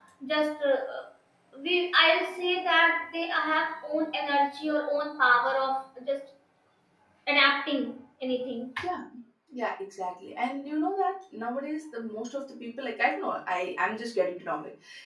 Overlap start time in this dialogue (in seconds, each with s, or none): none